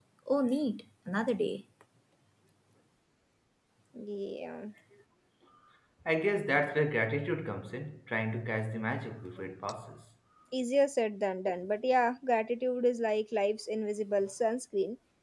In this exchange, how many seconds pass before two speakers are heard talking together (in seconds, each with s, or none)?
none